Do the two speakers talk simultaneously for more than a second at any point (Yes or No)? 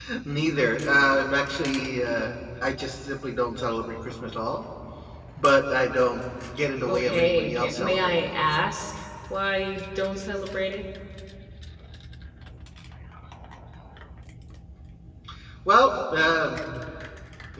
Yes